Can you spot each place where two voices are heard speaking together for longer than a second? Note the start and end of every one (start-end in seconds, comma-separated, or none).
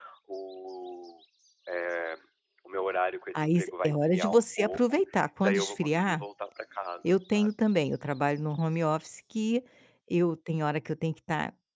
3.4-6.2